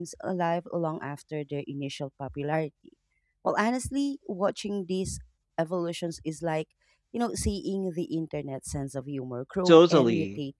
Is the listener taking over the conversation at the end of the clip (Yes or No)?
Yes